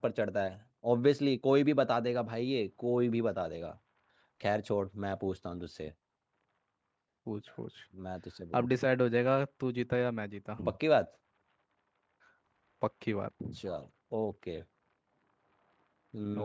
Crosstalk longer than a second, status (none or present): none